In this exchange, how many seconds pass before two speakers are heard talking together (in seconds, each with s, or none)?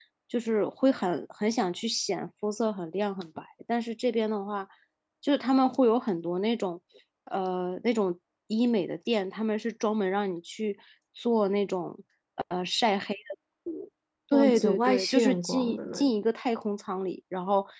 14.3 s